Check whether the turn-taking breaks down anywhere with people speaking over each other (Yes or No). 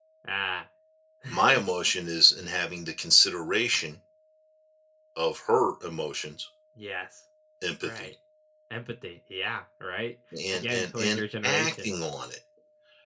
Yes